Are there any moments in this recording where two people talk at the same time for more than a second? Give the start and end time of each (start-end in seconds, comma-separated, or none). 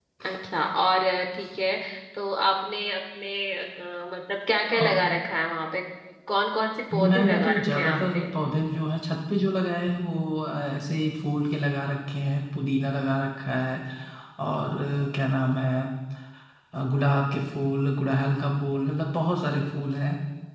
6.9-8.2